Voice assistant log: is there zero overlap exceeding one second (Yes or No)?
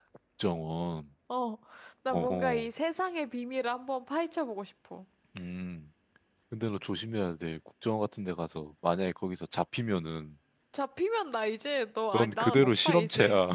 No